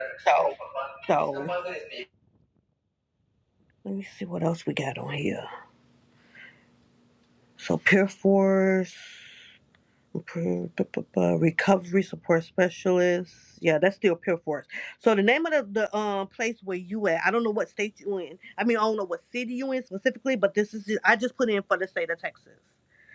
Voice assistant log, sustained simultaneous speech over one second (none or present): none